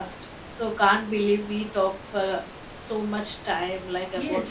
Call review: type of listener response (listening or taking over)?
taking over